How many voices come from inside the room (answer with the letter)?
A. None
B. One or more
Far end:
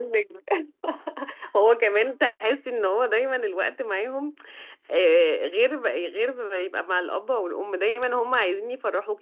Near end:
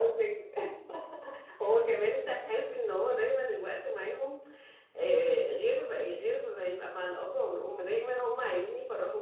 A